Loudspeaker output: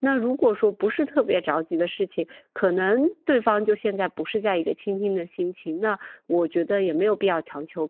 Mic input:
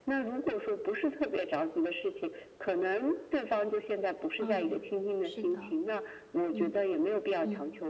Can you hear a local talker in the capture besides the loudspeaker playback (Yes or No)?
Yes